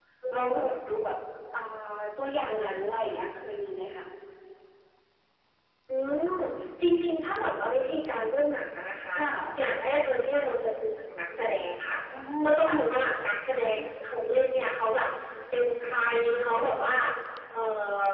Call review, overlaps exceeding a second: none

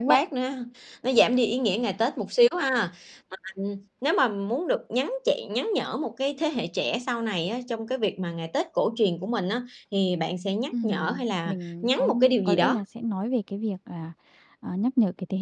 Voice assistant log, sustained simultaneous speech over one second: present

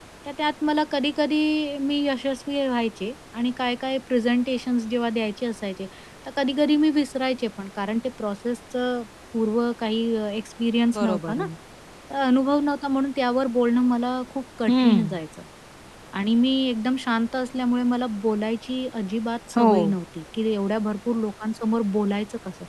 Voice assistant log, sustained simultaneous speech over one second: none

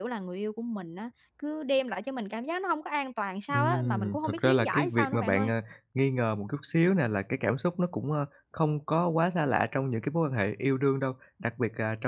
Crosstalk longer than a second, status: present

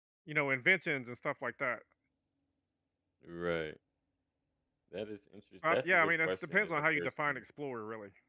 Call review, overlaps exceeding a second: present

